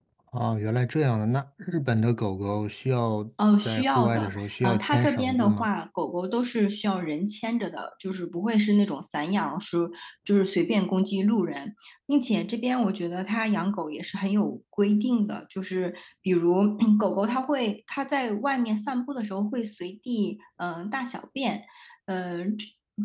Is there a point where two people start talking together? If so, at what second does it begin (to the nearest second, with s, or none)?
4 s